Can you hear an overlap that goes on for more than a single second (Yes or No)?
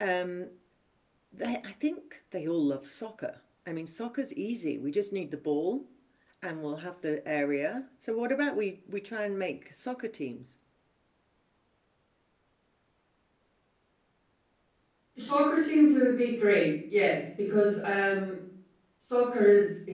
No